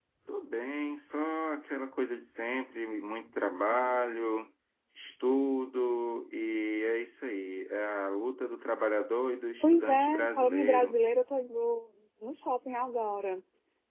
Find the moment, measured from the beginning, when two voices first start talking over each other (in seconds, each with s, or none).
9.6 s